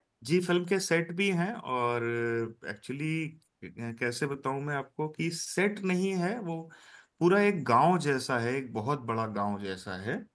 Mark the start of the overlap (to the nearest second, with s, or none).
none